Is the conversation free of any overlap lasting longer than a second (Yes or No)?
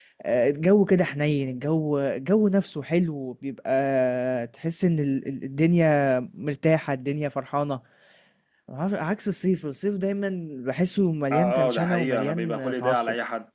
No